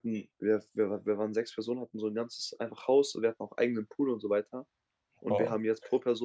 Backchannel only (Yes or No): Yes